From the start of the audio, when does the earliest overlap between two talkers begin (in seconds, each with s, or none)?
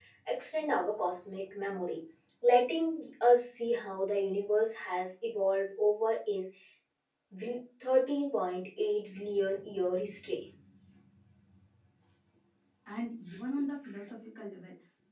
none